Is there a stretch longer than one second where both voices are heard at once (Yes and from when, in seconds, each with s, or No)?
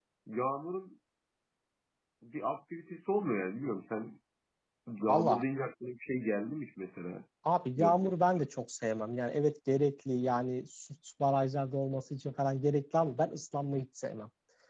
No